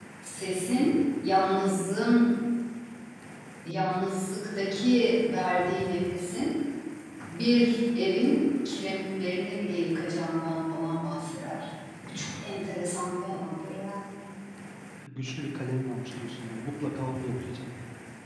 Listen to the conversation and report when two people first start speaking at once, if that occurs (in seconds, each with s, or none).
none